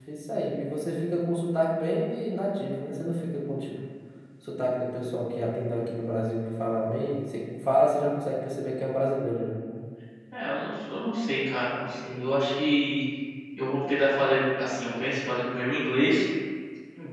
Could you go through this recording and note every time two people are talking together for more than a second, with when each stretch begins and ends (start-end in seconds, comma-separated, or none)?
none